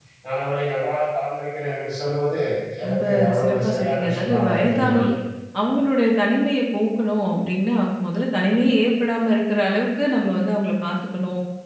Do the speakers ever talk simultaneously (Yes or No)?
Yes